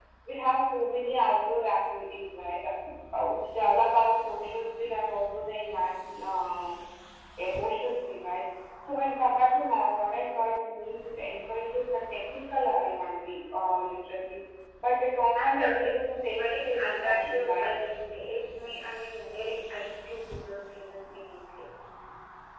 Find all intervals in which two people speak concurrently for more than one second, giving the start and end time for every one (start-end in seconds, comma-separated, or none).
15.4-17.7